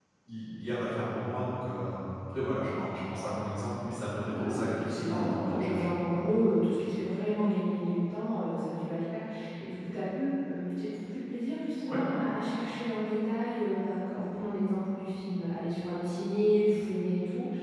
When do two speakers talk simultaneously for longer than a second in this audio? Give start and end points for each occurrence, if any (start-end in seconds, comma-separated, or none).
4.2-6.2